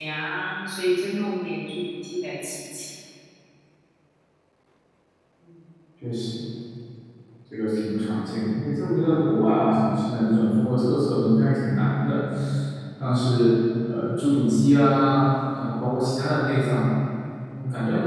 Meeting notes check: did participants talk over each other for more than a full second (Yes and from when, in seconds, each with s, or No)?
No